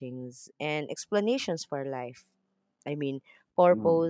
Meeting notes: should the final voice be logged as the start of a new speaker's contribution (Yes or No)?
No